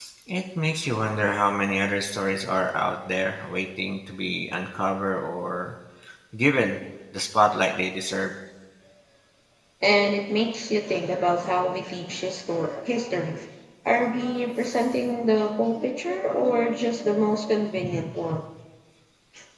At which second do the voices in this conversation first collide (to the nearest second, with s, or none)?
none